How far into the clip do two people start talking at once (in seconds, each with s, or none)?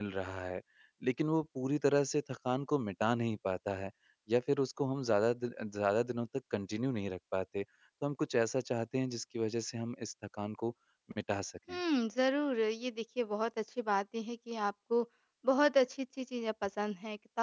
none